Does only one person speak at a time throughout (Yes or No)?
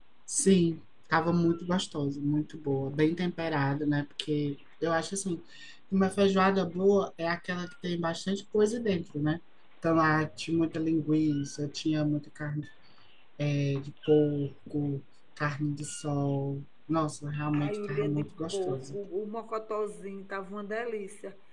No